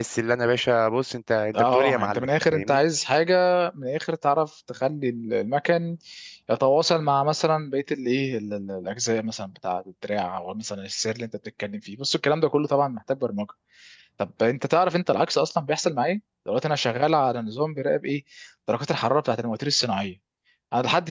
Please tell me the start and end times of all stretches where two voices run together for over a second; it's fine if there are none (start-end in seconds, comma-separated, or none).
1.5-2.8